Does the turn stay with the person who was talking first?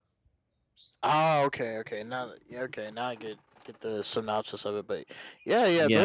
Yes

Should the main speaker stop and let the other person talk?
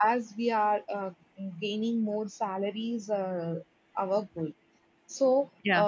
No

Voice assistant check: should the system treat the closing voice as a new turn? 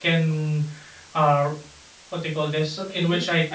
Yes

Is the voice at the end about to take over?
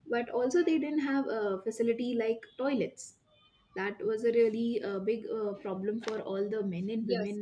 Yes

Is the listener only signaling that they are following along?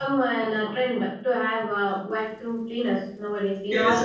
No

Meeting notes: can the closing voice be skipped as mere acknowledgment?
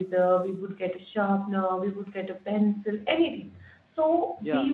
Yes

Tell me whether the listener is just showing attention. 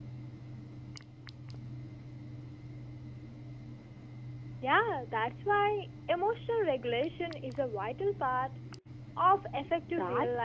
No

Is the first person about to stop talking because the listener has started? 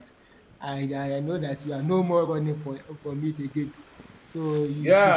Yes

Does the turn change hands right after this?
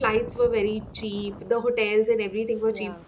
No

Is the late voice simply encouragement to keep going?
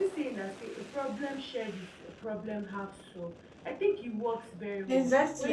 No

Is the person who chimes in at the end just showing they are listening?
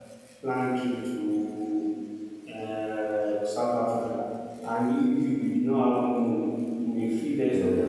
Yes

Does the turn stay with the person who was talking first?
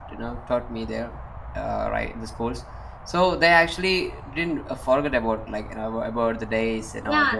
No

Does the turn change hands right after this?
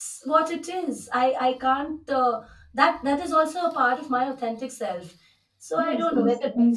Yes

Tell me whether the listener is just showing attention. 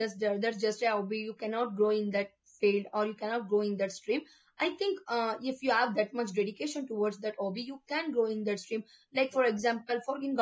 Yes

